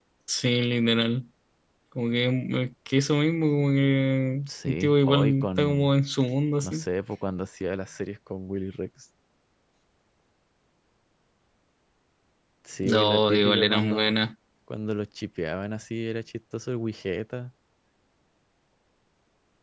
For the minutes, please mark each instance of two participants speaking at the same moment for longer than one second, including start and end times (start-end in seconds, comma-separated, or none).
4.5-5.9, 12.8-14.1